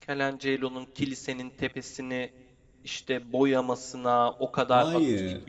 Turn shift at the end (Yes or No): No